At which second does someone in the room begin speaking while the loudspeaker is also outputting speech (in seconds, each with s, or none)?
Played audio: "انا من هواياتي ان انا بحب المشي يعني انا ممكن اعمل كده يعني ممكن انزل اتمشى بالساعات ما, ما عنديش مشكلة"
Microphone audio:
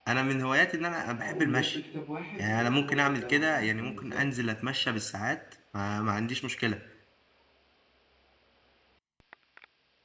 1.2 s